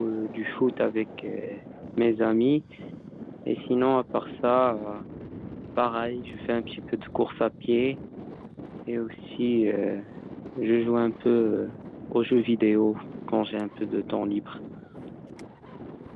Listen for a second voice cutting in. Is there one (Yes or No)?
No